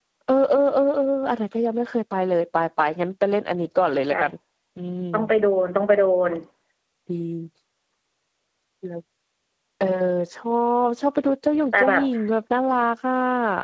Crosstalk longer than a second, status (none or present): none